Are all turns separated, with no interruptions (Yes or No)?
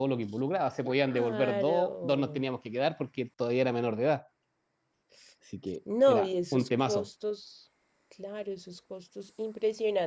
No